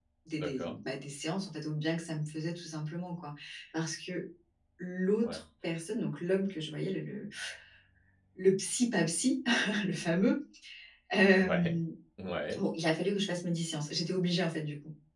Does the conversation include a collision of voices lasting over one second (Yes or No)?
No